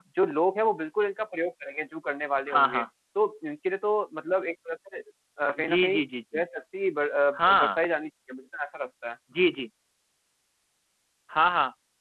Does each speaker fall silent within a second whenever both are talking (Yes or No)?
Yes